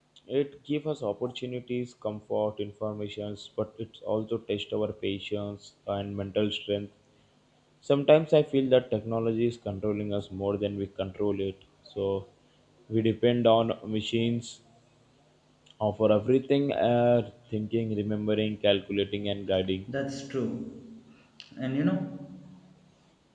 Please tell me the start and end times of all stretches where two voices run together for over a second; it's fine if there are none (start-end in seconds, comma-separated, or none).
none